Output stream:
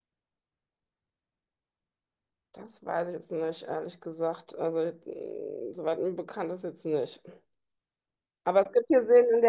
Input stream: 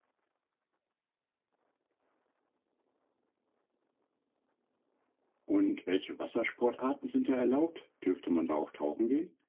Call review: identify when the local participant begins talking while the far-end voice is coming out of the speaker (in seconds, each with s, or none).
5.4 s